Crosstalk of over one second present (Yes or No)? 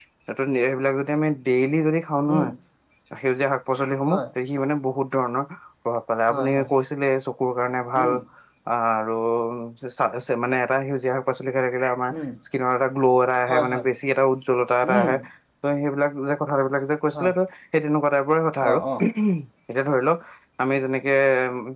No